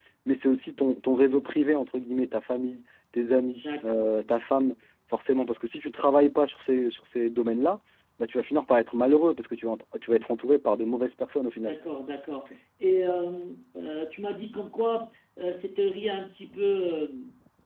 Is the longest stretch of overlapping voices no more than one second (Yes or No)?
Yes